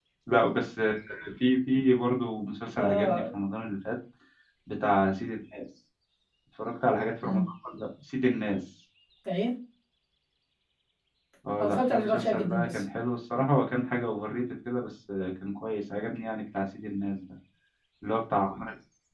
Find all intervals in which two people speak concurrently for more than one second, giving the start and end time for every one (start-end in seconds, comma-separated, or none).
11.6-12.8